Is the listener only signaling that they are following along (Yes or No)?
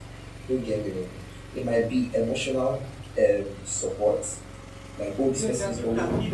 No